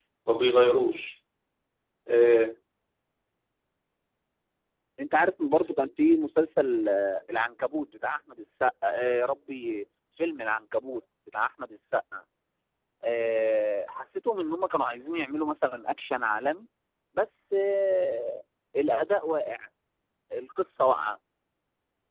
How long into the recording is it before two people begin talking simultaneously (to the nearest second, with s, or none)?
none